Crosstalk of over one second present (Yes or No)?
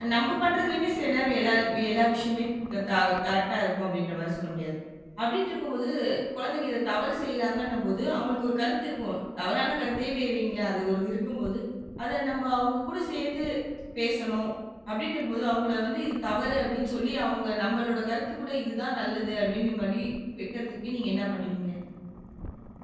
No